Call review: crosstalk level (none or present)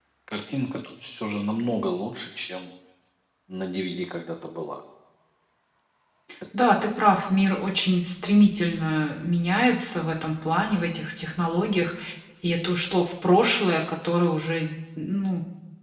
none